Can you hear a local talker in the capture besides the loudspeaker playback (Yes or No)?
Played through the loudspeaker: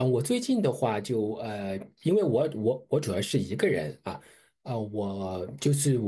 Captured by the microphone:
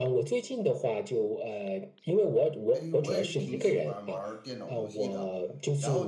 Yes